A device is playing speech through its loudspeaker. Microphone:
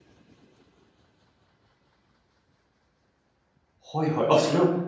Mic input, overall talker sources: user only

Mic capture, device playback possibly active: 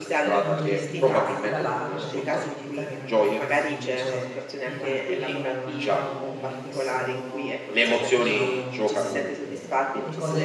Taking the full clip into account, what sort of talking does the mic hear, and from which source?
both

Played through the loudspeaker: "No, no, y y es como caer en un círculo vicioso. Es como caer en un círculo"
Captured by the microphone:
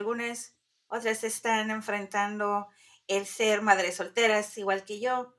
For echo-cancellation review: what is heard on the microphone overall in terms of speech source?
user only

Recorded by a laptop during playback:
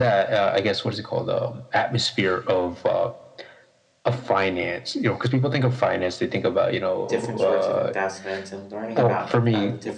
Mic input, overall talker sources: both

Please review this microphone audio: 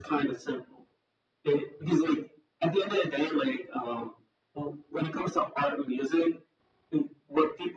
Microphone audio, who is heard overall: echo only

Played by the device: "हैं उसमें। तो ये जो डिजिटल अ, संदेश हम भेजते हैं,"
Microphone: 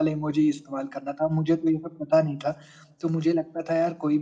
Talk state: user only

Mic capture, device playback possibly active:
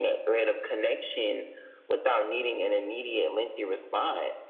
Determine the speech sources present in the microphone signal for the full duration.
echo only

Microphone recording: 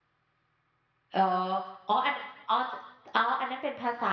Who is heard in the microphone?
user only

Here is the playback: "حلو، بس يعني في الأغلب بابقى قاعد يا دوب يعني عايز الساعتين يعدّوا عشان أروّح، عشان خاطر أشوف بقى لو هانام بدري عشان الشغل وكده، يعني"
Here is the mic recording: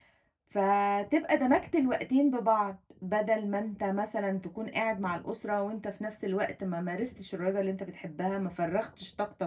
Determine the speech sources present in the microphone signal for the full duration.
user only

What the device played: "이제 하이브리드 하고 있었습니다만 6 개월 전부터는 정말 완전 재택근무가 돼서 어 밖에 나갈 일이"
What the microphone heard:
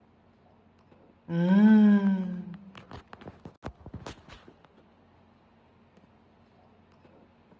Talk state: user only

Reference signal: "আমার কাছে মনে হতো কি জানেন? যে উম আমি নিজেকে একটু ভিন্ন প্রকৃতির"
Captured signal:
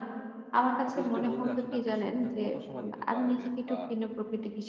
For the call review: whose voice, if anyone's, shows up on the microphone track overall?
both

